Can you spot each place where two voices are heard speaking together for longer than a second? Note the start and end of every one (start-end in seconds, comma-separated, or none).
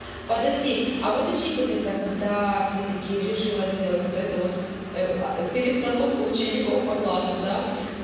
none